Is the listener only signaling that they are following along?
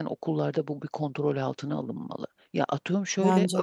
Yes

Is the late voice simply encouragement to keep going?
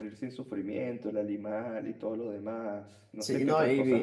No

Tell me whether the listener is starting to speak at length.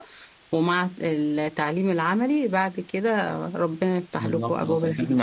Yes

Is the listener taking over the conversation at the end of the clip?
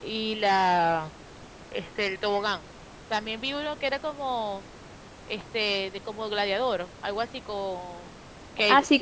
Yes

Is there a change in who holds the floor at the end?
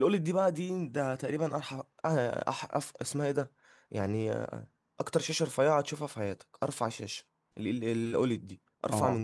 Yes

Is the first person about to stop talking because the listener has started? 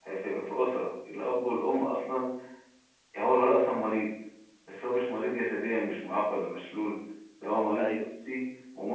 No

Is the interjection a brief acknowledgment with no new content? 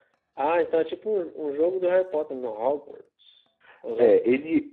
No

